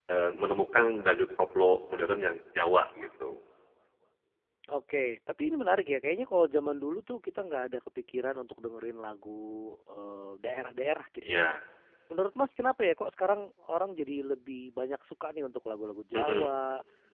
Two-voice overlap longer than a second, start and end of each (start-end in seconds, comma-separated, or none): none